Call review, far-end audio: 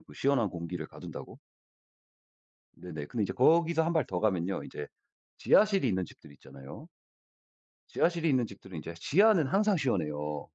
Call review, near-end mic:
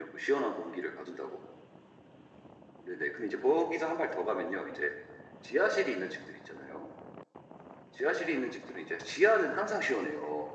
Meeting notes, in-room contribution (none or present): none